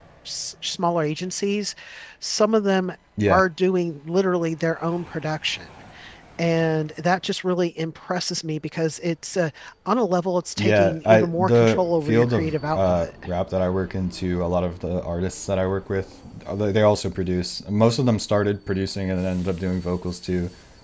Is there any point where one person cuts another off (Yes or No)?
Yes